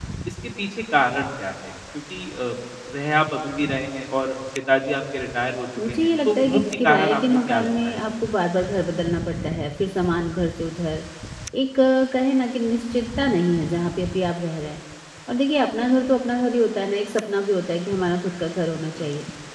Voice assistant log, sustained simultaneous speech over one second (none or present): present